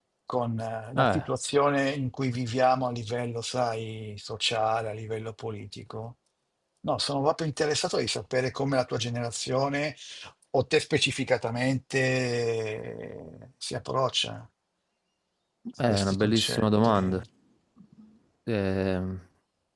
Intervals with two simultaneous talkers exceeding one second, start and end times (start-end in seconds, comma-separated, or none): 15.9-17.2